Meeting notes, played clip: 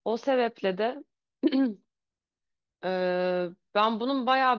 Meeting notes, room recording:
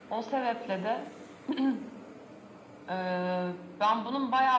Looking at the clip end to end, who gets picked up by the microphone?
echo only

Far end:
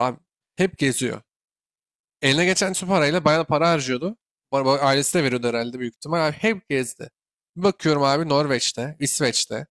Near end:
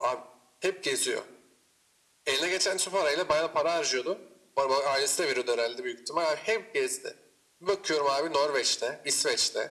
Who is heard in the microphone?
echo only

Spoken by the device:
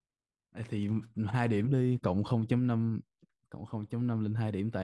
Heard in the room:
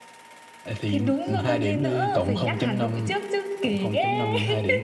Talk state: both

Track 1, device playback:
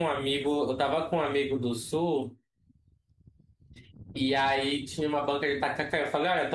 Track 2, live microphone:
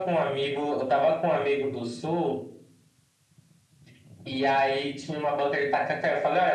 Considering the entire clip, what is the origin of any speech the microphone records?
echo only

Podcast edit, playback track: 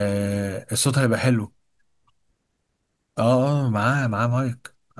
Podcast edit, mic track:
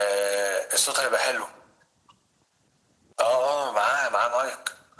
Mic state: echo only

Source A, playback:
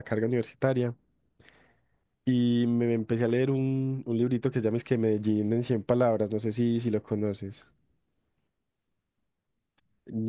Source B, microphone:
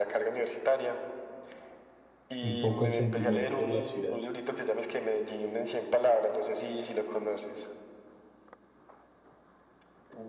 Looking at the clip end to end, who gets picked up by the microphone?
both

